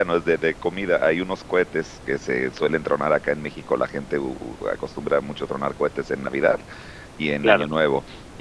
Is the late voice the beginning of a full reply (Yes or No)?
No